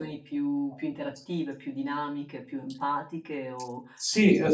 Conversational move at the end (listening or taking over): taking over